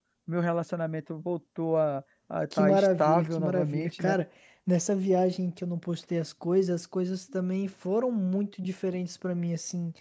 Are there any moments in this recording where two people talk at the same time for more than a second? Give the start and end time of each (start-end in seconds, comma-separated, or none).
2.5-4.2